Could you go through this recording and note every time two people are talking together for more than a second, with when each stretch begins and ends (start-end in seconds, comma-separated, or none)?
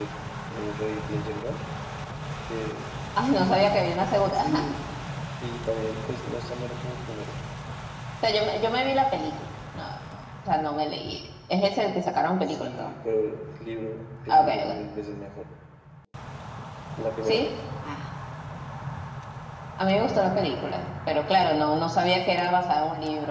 none